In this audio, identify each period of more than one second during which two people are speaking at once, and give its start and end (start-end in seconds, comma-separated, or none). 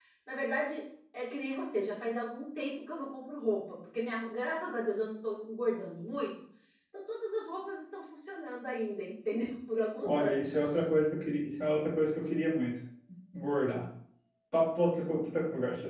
none